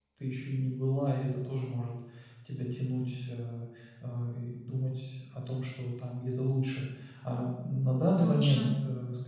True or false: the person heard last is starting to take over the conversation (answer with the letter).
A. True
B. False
B